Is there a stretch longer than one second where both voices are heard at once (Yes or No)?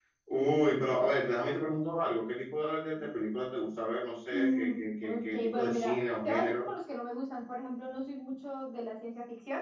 Yes